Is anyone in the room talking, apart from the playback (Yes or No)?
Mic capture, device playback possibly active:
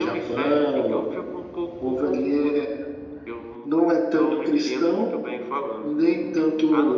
No